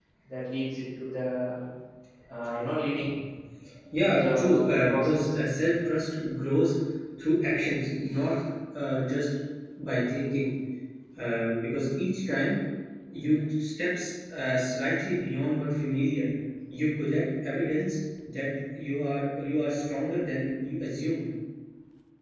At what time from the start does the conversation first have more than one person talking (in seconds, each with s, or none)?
4.0 s